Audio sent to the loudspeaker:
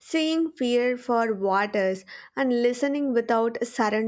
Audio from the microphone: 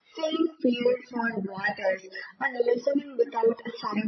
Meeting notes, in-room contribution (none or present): none